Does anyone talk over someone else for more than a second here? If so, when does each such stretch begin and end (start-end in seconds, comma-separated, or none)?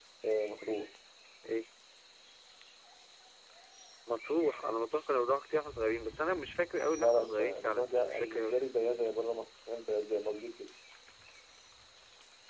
7.0-8.6